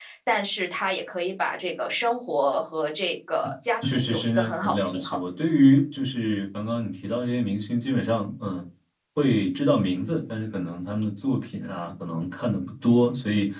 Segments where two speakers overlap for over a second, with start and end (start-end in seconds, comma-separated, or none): 3.9-5.2